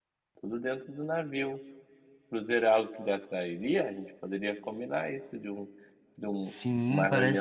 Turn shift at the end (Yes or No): Yes